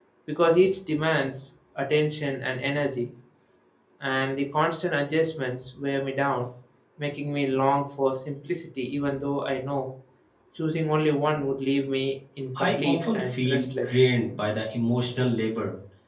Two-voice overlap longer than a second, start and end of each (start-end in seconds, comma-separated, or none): 12.6-14.0